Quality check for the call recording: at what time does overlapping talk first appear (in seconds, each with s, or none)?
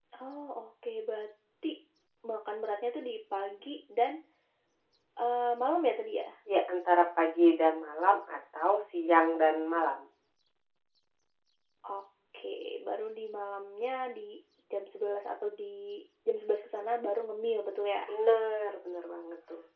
none